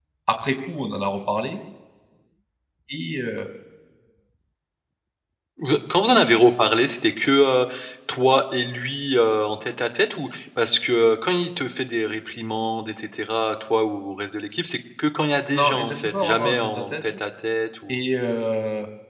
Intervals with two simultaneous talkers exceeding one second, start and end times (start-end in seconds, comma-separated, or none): 15.5-17.1